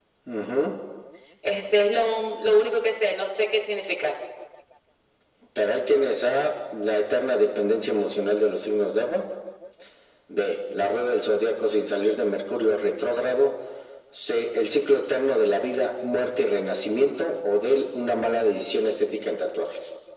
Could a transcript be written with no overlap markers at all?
Yes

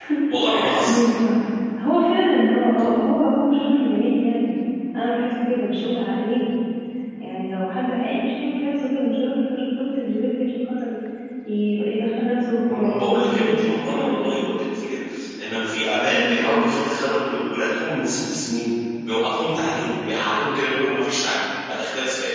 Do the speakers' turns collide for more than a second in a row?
Yes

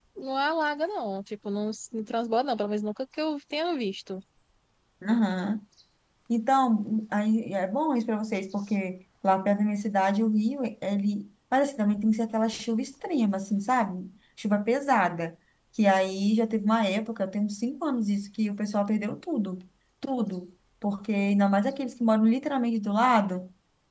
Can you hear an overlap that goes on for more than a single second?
No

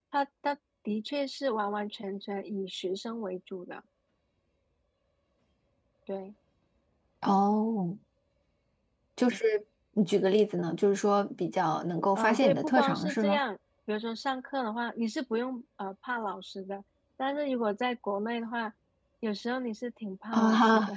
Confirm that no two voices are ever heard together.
No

